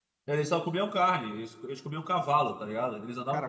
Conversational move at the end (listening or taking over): taking over